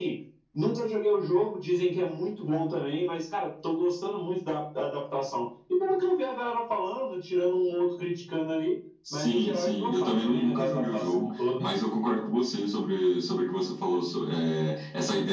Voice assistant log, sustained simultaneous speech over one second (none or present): present